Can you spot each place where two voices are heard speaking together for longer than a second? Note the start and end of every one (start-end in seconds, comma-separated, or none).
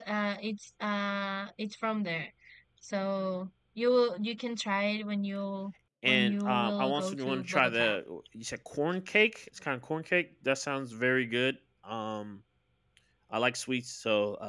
6.0-8.0